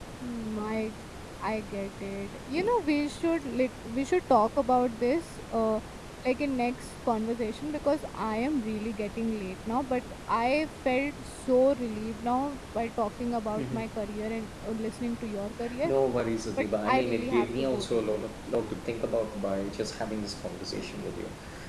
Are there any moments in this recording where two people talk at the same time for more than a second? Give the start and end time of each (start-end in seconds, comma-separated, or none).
16.6-18.2